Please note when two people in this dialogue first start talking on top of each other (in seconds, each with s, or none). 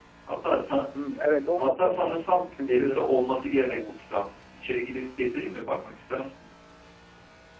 1.6 s